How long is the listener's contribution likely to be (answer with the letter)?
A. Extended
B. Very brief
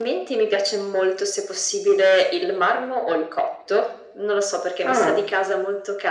B